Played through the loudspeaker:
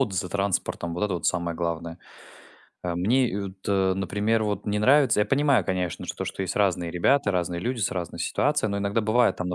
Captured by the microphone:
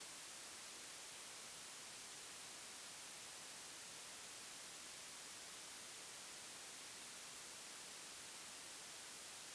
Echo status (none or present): none